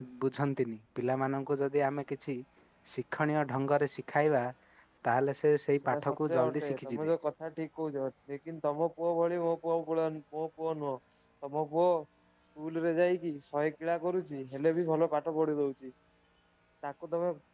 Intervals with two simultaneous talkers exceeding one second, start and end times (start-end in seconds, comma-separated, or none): 5.8-7.1